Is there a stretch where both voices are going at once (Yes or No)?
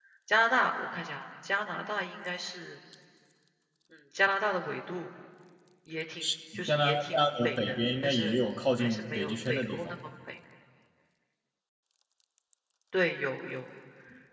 Yes